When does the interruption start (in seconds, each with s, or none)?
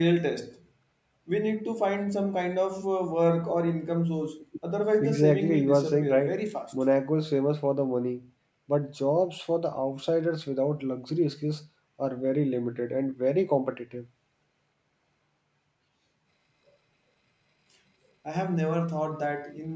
5.0 s